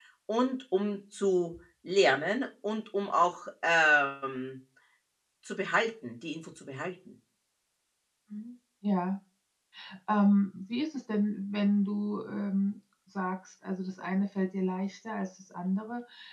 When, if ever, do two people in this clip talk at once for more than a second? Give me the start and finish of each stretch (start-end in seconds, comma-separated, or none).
none